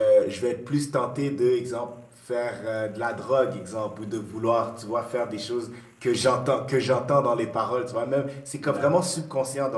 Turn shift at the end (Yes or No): No